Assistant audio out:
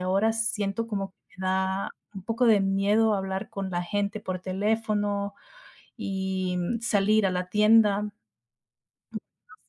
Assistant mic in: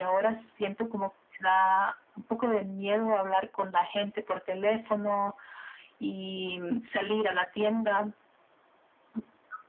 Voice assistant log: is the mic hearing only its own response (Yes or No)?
Yes